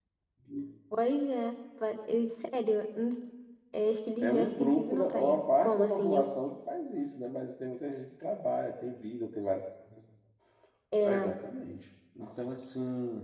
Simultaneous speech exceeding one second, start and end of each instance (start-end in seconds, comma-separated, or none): 4.2-6.2